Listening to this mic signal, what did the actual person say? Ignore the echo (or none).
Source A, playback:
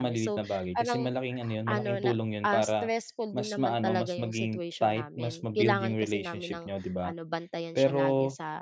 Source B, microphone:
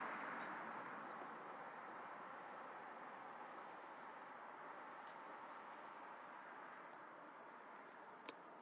none